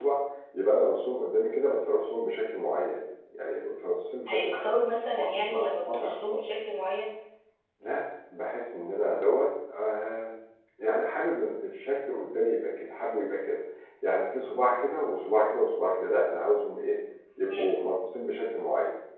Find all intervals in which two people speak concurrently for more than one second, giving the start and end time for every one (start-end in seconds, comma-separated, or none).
5.2-6.4